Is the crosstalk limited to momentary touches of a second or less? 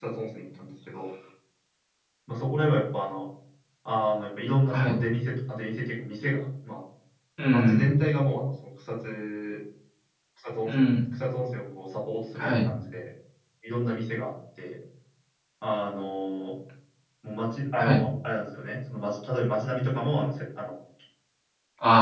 Yes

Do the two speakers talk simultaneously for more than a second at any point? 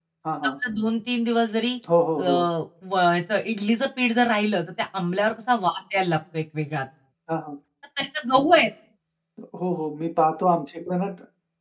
No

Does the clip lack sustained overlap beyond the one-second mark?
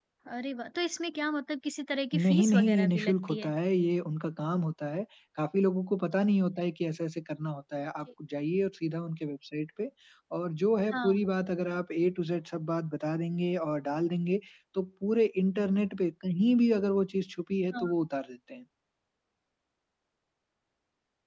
No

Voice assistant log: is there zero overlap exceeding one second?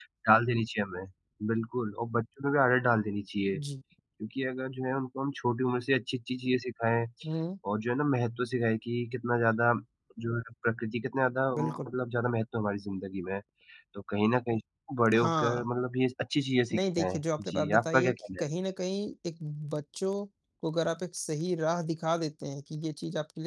No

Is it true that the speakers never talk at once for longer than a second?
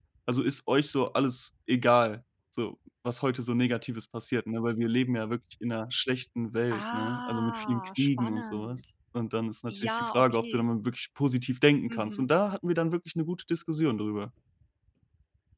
No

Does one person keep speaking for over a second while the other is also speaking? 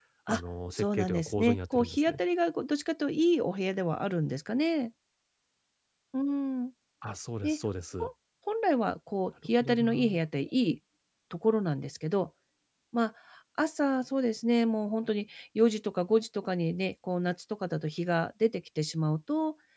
Yes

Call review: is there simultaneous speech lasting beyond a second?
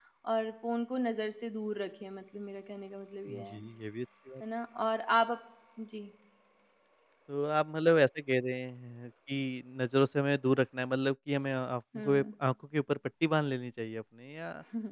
No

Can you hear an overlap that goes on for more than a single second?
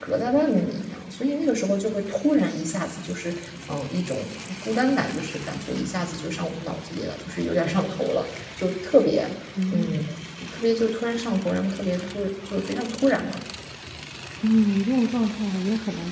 No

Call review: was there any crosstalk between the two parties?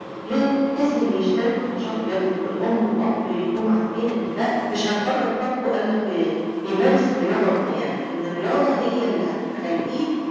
No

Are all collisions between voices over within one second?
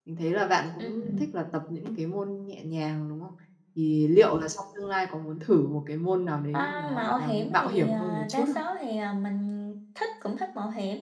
No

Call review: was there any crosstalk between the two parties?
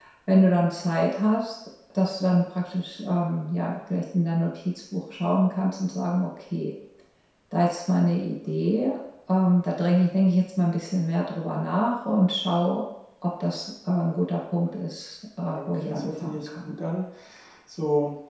Yes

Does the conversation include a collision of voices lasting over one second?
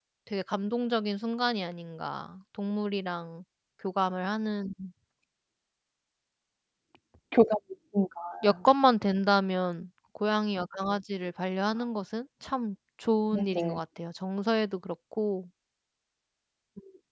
No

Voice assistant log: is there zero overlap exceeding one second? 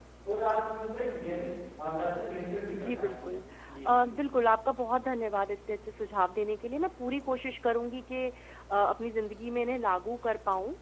Yes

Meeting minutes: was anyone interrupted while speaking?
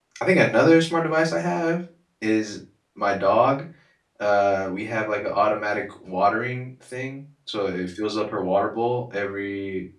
No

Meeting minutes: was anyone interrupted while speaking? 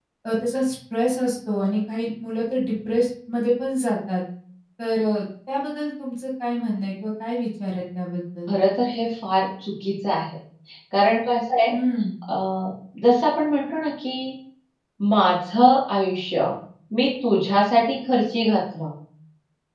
No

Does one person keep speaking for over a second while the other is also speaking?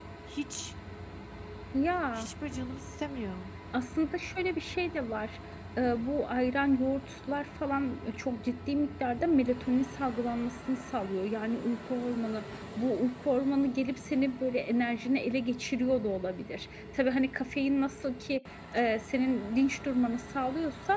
No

